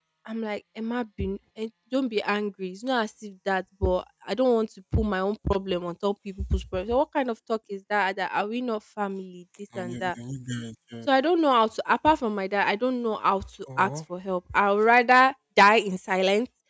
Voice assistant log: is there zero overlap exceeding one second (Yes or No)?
Yes